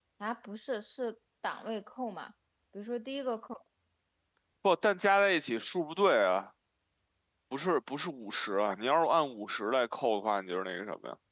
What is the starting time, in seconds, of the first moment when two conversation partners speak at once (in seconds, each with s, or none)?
none